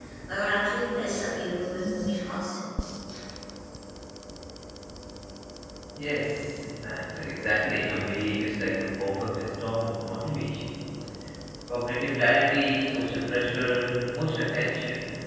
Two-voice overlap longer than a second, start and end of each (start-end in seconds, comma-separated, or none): none